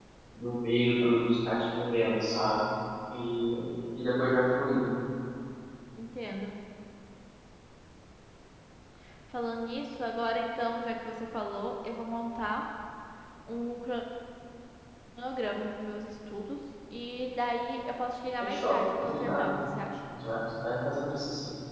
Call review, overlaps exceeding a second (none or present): present